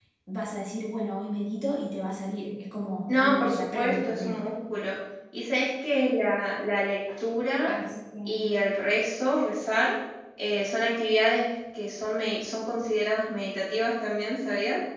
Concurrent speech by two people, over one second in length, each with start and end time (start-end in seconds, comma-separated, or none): 3.1-4.4